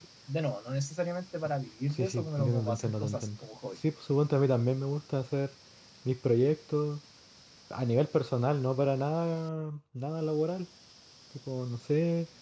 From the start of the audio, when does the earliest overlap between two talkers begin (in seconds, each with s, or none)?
1.9 s